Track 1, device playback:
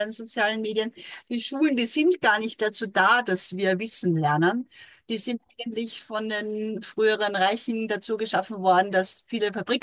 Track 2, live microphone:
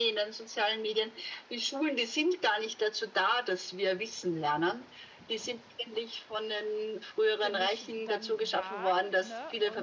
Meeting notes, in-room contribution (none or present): present